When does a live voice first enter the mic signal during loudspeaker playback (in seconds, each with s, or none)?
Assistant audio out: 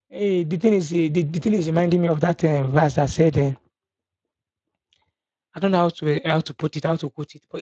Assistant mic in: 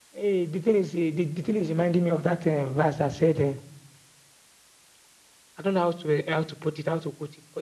none